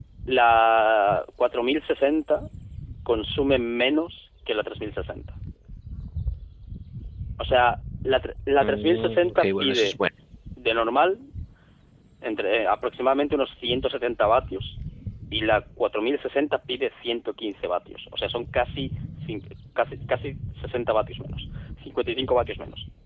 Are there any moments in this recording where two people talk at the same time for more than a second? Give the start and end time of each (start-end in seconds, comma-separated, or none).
8.6-10.0